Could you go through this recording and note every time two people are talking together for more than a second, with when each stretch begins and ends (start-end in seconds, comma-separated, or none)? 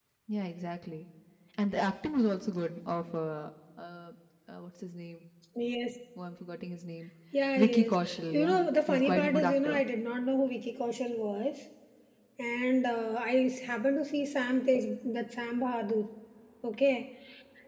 7.6-9.8